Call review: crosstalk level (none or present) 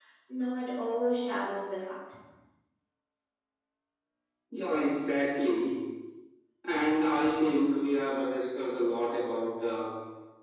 none